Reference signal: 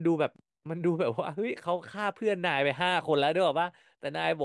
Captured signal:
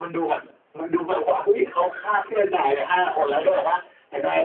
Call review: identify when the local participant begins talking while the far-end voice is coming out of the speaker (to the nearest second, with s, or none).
none